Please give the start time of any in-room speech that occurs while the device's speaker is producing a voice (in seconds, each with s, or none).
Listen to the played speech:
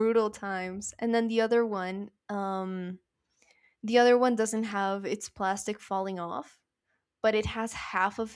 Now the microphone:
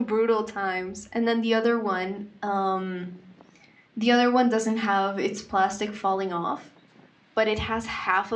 none